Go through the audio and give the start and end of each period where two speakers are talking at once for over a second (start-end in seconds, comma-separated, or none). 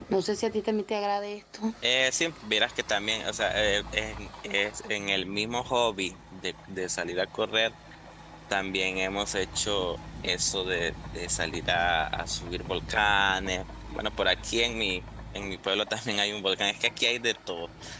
none